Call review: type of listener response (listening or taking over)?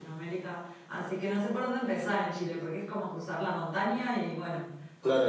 taking over